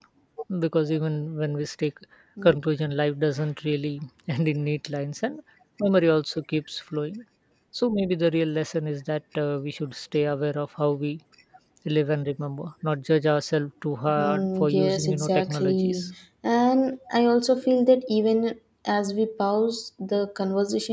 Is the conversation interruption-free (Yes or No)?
No